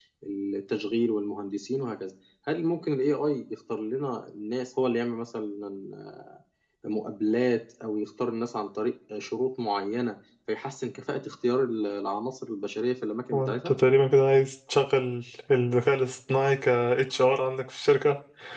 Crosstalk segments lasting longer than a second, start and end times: none

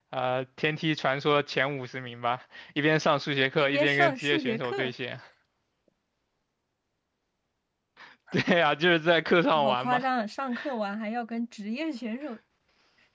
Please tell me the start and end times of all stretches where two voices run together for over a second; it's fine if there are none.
3.6-4.9

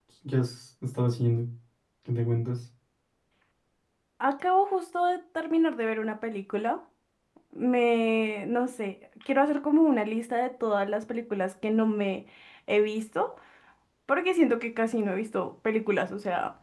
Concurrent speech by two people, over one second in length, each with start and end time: none

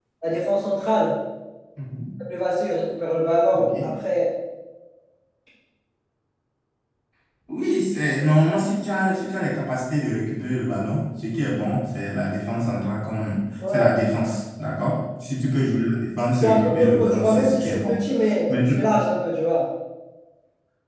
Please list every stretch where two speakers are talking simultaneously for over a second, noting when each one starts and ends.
16.3-18.0

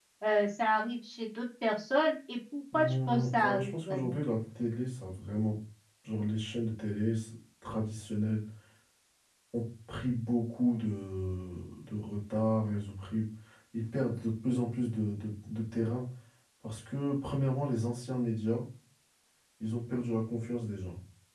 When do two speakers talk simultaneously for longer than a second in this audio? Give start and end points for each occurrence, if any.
2.7-4.2

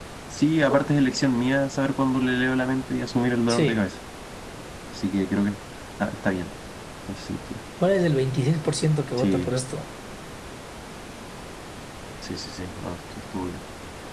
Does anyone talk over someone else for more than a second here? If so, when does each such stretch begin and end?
none

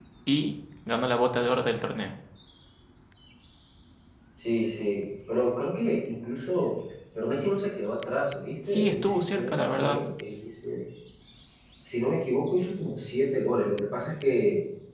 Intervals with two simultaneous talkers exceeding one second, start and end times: 8.7-10.0

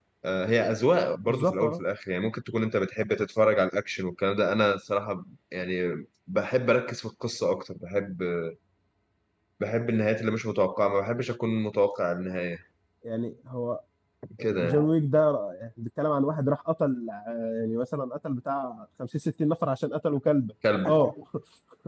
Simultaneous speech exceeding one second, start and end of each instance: none

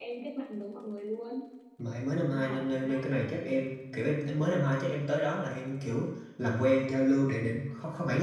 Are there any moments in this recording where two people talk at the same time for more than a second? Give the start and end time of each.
2.4-3.6

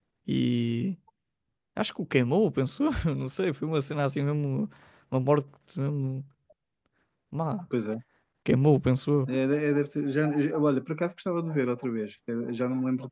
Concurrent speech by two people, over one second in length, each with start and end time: none

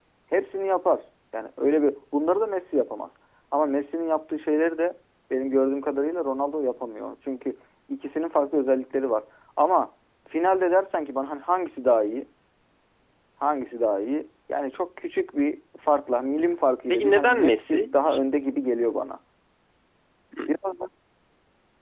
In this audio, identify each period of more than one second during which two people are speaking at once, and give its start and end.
16.9-18.2

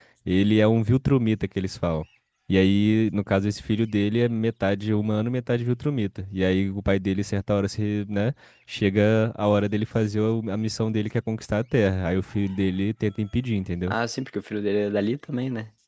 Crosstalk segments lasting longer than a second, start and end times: none

